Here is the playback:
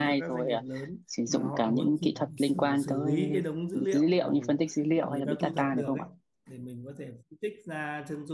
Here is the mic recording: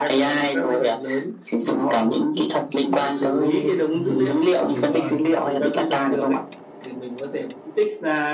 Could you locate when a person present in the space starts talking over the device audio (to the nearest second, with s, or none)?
4 s